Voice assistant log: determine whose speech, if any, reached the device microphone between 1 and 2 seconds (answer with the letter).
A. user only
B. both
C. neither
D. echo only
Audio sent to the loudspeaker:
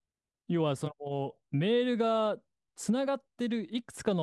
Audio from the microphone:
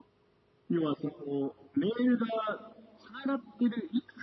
D